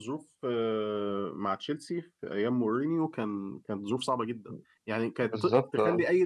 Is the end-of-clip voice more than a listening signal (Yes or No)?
No